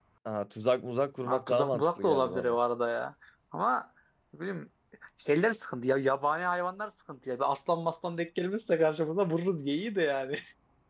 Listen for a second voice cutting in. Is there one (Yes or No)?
Yes